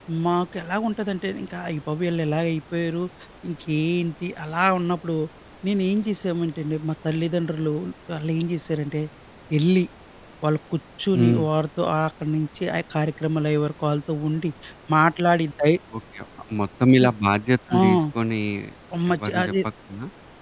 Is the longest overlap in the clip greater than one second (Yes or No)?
No